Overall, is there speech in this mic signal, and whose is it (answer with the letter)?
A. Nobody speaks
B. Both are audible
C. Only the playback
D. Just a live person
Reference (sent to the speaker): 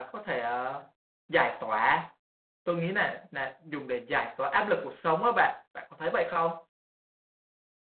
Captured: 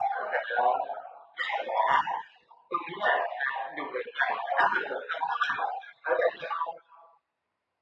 C